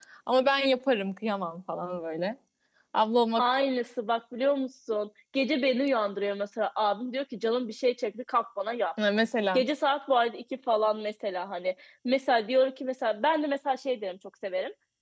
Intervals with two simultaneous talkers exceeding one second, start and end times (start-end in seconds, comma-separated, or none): none